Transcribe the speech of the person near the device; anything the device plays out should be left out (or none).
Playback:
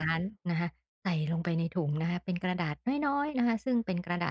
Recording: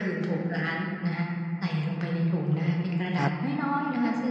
ครับ